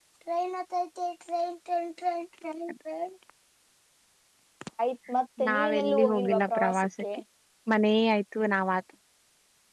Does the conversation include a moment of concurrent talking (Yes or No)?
Yes